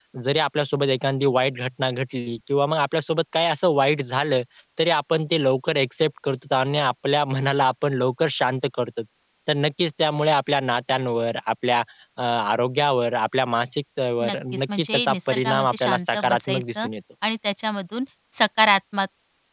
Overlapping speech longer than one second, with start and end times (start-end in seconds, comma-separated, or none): 14.2-16.9